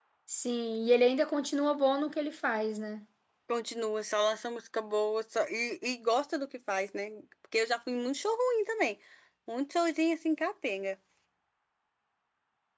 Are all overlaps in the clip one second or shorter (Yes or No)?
Yes